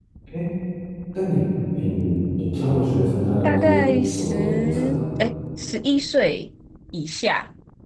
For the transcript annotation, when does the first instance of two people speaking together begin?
3.4 s

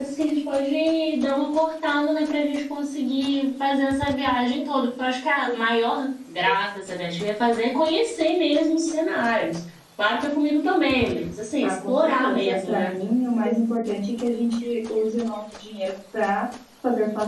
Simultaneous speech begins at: 11.6 s

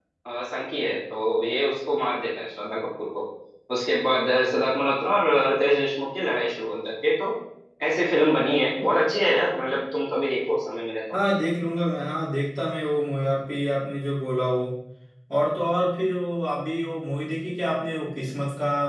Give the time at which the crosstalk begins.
none

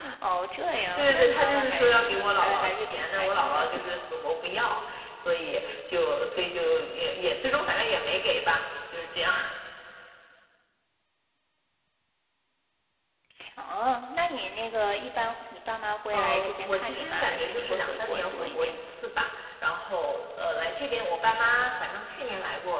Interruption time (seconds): 0.9 s

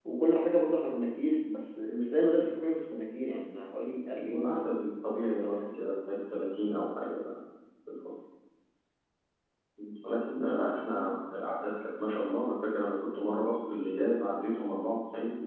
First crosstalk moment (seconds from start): 4.3 s

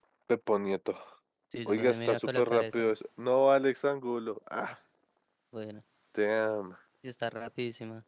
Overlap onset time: 1.7 s

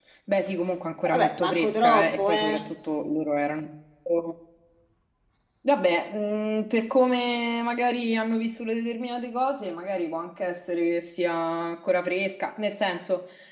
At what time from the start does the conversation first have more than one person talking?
1.0 s

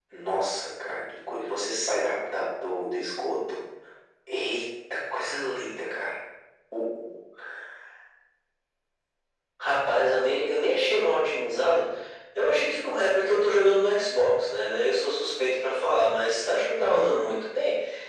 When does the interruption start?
none

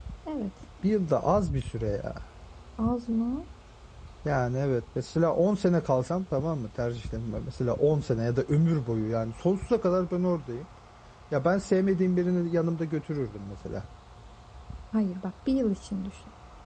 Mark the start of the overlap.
none

